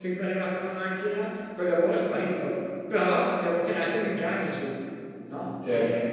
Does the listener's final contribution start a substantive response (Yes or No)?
Yes